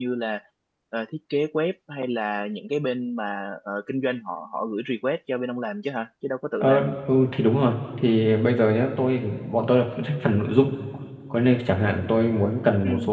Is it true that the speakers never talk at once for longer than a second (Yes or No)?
Yes